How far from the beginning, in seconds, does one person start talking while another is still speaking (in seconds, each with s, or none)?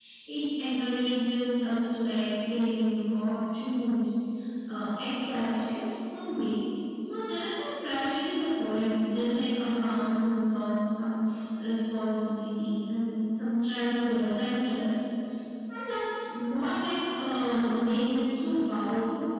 none